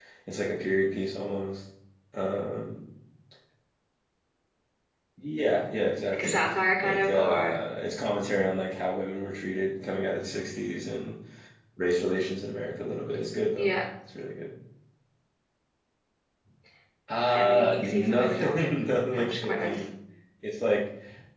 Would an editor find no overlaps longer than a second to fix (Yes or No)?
No